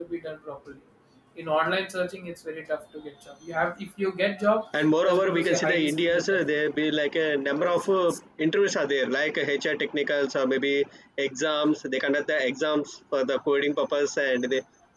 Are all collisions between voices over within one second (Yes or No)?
No